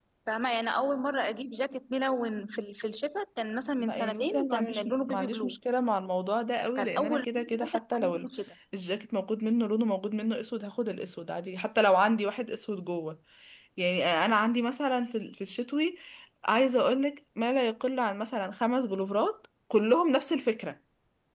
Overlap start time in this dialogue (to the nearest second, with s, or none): 4 s